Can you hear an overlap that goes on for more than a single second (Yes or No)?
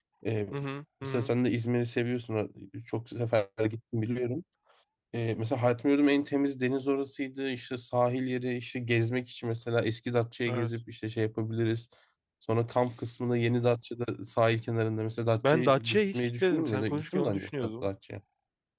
Yes